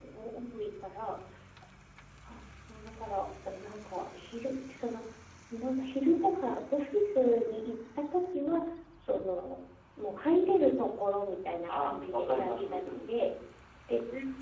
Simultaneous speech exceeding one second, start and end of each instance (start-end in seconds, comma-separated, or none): 11.7-13.1